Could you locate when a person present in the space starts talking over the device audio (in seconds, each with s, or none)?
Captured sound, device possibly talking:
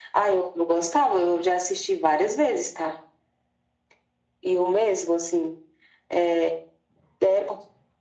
none